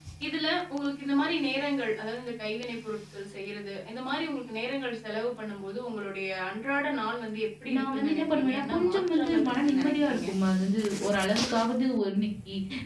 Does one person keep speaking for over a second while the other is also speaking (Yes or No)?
Yes